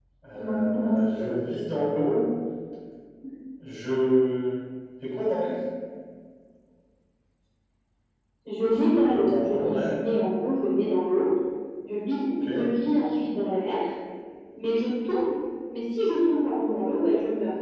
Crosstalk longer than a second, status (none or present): present